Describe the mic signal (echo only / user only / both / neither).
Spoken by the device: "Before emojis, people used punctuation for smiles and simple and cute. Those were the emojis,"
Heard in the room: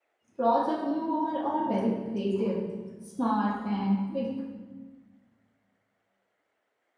user only